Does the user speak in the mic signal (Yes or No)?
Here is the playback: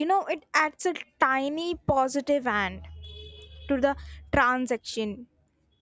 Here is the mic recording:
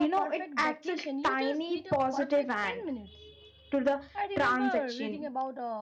Yes